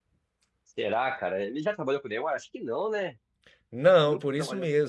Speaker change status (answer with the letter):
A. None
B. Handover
B